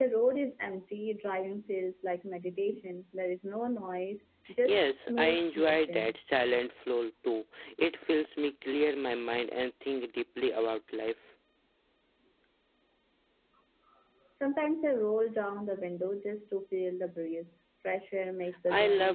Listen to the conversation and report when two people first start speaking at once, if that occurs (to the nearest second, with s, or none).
5 s